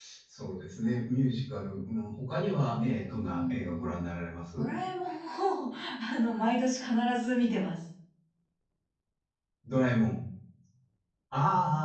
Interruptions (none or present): present